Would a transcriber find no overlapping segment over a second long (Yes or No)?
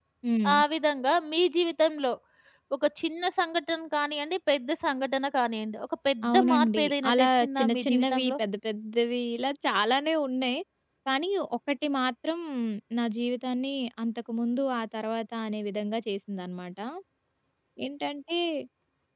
No